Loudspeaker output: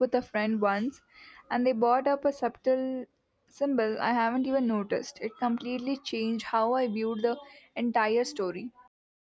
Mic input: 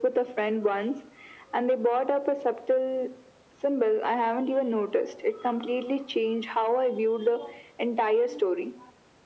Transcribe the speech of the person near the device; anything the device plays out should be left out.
none

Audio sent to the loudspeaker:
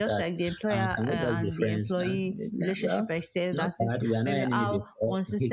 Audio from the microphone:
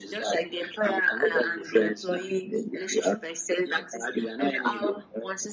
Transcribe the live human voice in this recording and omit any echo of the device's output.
none

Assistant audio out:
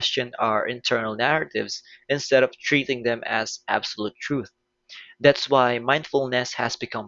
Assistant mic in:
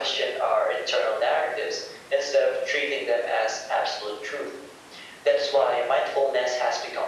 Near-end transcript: none

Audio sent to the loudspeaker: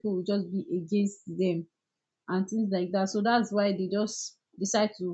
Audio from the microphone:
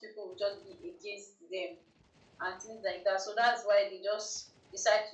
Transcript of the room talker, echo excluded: none

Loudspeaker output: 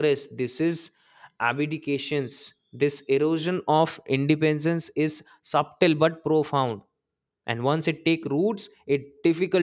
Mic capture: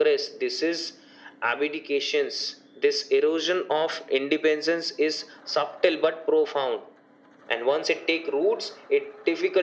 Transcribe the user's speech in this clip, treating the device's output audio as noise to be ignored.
none

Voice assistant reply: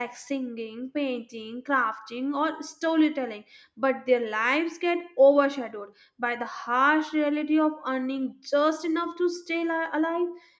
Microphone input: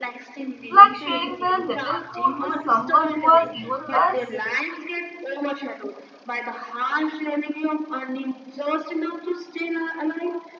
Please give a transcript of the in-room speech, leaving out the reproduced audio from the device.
like sharing their little food with someone who has even less,

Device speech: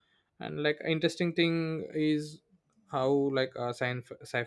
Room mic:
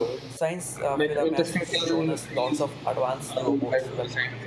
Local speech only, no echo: science uh, film has shown us lots of advanced robots that

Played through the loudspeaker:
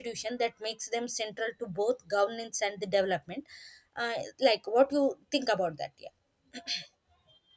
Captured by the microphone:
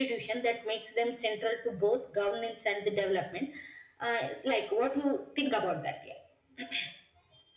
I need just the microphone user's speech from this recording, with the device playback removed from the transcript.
none

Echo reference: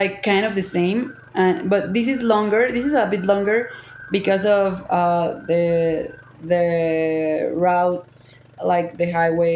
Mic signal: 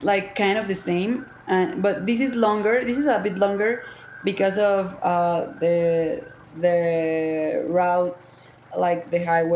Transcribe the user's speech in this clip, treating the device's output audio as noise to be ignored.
none

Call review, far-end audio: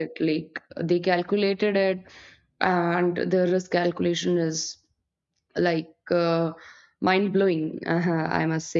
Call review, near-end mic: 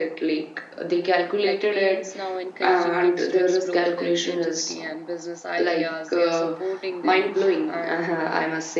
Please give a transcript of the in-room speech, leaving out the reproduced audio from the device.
Like parents now encouraging kids to explore their creativity and business ideas, they are supporting them, and uh,

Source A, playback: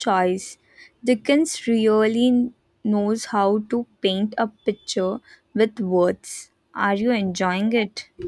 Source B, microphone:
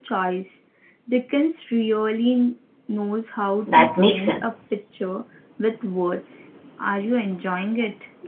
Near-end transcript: That makes sense.

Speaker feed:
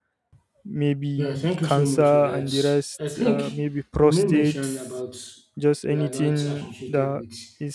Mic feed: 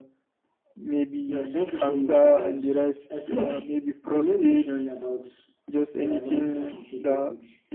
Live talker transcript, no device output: none

